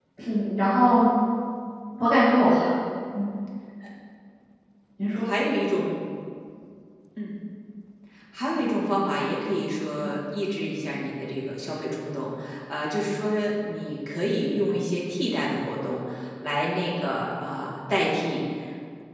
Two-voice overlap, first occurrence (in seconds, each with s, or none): none